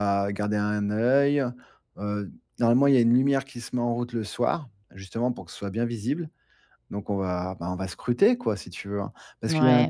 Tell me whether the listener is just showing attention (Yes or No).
No